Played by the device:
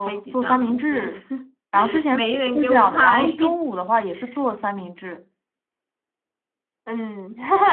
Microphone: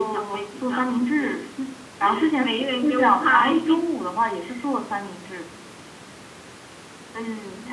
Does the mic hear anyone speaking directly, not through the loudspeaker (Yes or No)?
No